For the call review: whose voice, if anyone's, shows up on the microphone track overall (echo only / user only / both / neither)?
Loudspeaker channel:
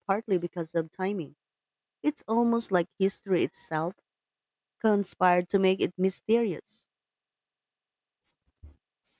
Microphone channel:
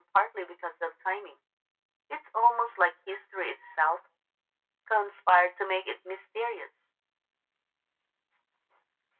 echo only